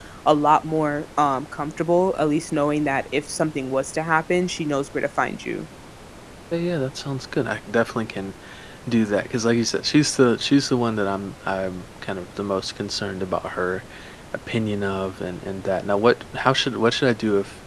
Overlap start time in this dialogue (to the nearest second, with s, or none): none